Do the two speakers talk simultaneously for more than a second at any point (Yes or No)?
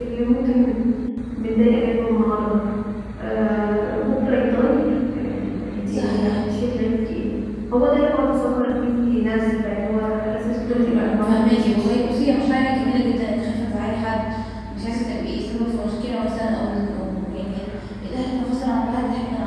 Yes